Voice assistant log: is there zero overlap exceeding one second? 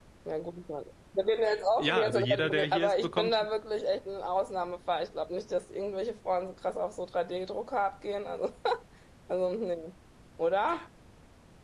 No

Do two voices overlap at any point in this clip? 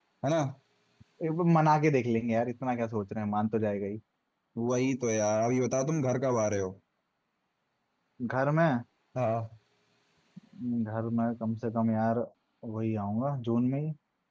No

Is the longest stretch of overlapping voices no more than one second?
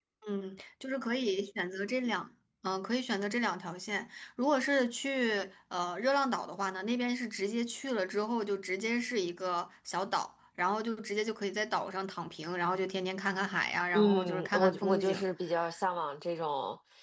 No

